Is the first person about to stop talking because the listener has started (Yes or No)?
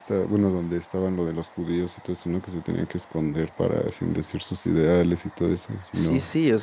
Yes